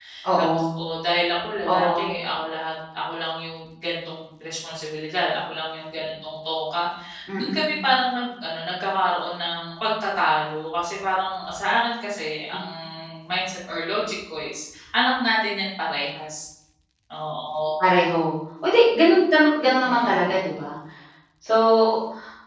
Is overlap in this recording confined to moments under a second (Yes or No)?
Yes